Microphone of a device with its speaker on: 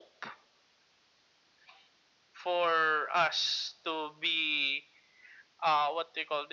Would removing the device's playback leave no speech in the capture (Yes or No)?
Yes